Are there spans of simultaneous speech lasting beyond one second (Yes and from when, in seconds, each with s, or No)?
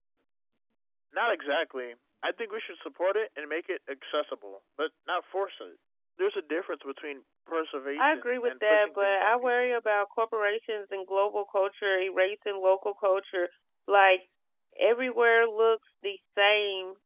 Yes, from 8.0 s